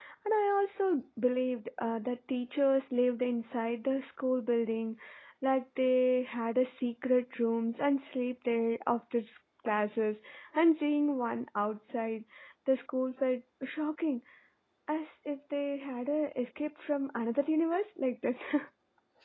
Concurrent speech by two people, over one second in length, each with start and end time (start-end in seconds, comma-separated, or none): none